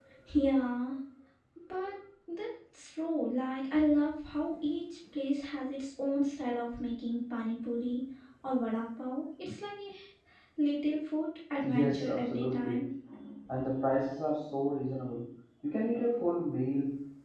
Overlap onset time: 11.6 s

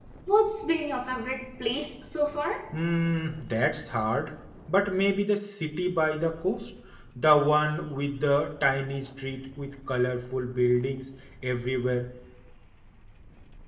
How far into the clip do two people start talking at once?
none

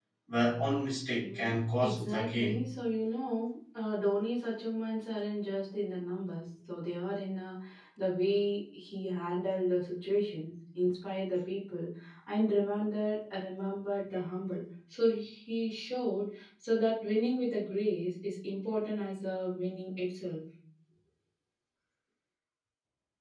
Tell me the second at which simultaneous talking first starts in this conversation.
1.2 s

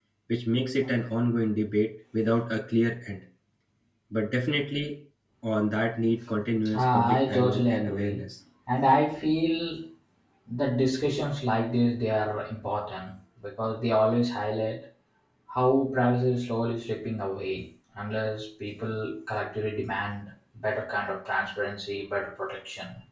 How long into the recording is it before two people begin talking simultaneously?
6.7 s

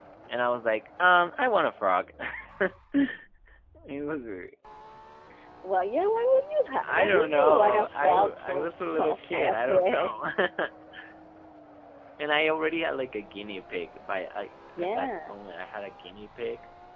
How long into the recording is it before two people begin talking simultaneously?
6.8 s

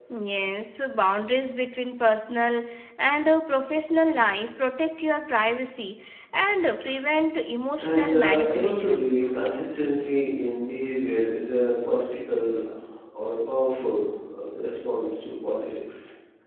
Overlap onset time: 7.8 s

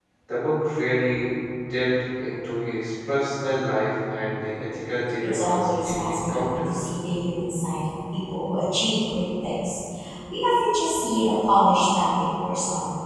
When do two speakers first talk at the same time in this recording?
5.2 s

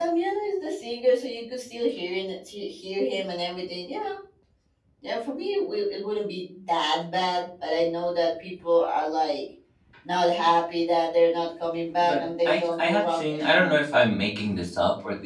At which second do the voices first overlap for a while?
12.0 s

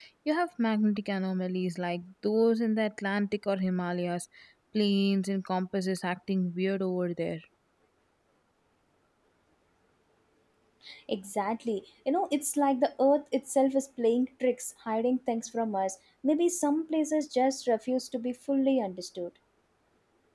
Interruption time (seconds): none

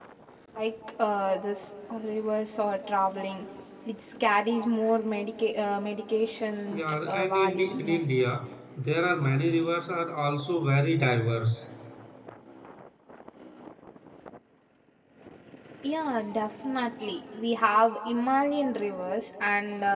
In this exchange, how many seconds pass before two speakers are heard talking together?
6.7 s

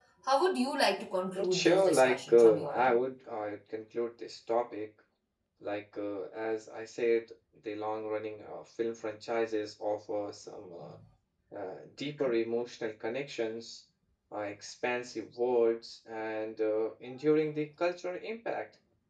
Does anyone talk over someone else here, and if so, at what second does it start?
1.3 s

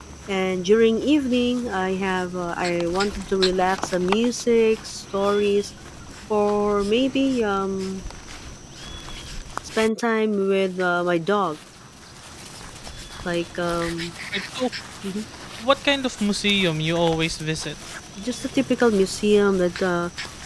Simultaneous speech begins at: none

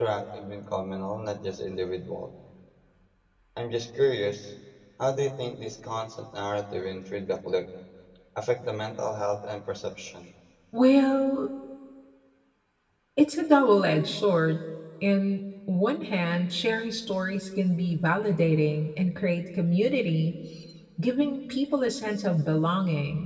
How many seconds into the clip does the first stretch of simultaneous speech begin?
none

